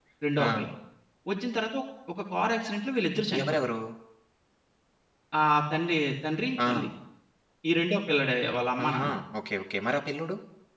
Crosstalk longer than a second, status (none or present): none